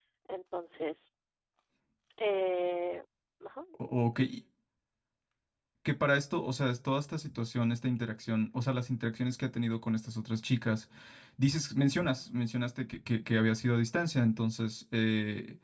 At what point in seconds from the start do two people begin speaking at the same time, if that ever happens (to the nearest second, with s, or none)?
none